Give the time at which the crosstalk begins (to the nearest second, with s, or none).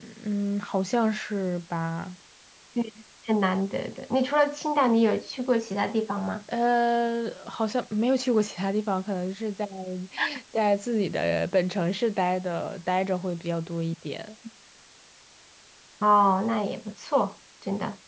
none